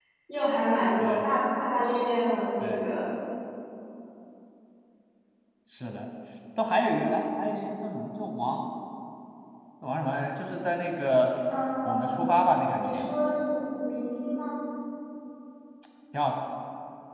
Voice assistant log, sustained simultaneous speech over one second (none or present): none